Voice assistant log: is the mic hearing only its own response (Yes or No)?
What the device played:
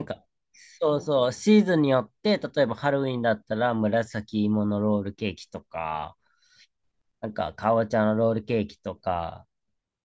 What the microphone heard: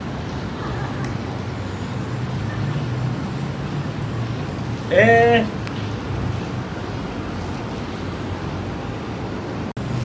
No